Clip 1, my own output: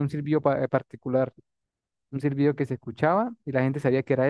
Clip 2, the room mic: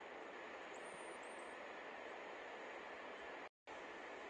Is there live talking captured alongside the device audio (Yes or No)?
No